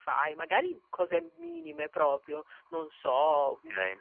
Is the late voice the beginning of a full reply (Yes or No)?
No